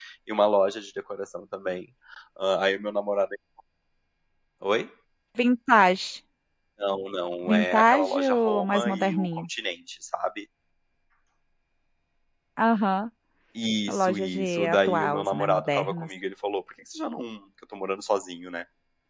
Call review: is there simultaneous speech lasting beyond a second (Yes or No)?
Yes